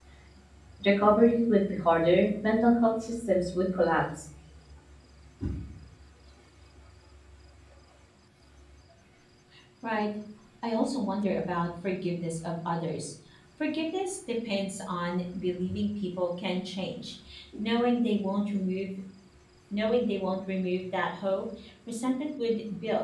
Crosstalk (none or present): none